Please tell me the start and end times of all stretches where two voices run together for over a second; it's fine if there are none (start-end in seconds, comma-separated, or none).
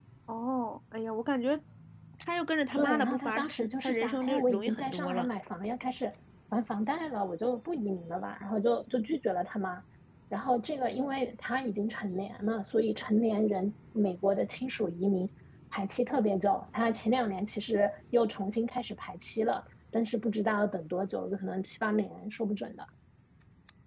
2.7-5.3